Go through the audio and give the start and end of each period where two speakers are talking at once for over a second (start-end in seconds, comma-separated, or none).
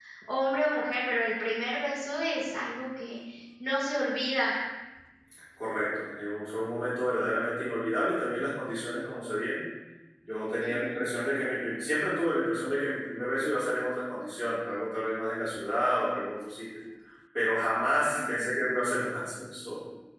none